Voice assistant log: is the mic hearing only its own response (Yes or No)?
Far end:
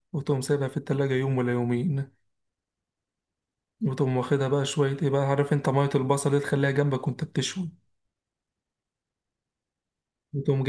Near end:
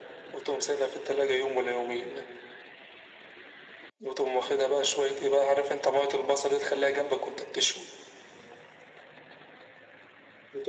Yes